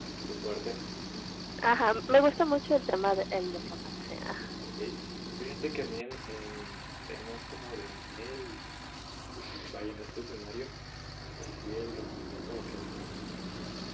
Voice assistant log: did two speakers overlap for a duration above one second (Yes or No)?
No